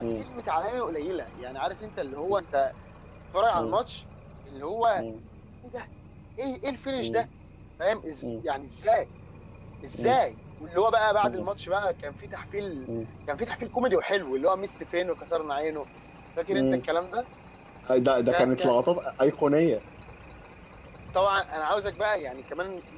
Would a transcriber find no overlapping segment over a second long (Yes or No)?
Yes